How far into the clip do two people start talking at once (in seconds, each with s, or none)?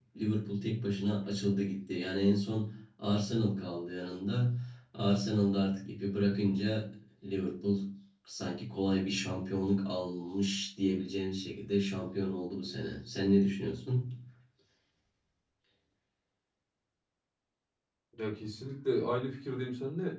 none